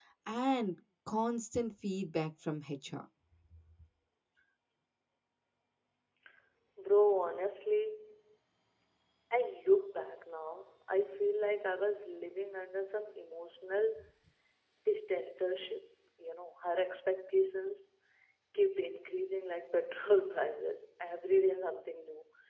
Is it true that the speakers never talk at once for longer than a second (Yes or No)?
Yes